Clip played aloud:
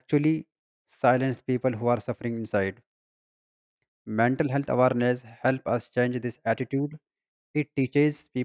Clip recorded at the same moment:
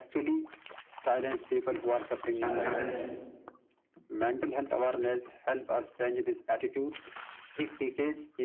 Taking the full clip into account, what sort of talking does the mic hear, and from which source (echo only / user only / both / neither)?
both